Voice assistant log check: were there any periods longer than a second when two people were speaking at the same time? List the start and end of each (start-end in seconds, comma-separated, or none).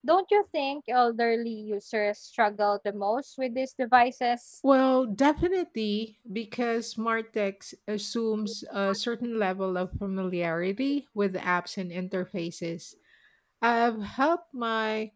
none